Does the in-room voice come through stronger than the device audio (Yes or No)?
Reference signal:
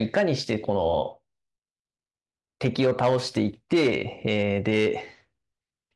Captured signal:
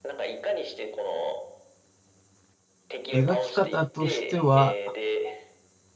Yes